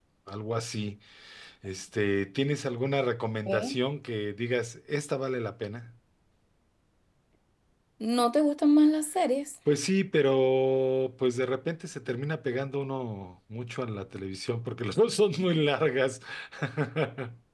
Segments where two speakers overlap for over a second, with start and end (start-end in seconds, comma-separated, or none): none